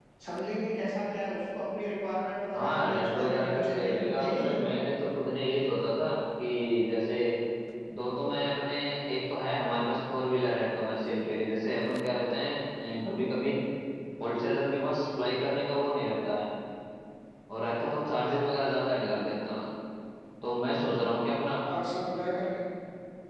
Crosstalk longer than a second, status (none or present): present